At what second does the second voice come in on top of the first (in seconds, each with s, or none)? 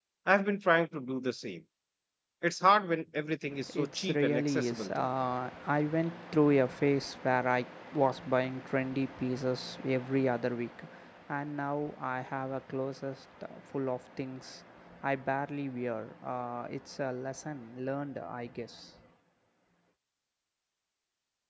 3.7 s